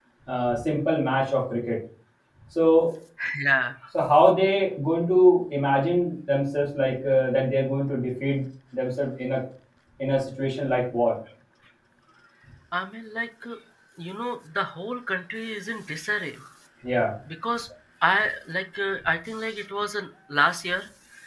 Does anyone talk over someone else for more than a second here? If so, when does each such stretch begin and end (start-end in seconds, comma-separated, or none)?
none